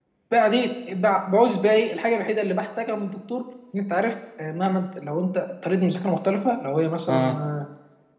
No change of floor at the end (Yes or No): Yes